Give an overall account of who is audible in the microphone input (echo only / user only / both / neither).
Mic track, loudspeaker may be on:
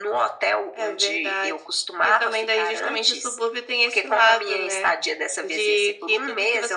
echo only